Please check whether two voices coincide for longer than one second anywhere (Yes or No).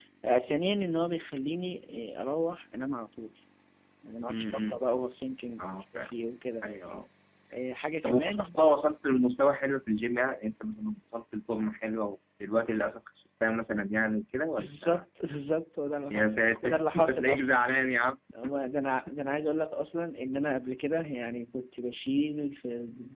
Yes